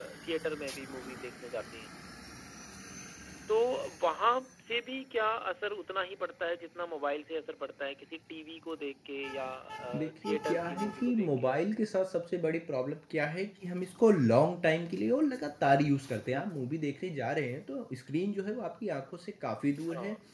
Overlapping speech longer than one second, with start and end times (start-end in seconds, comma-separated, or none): 9.9-11.5